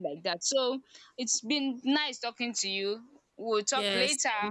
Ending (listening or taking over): taking over